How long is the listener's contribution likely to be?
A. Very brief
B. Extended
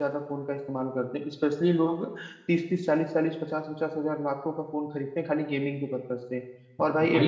A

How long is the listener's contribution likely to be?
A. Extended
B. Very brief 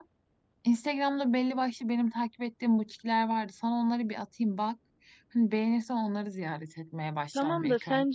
A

